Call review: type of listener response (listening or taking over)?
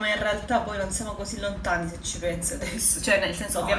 taking over